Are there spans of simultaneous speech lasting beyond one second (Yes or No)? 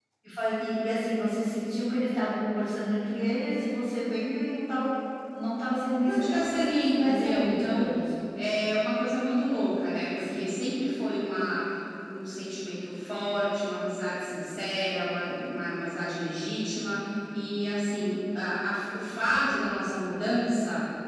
Yes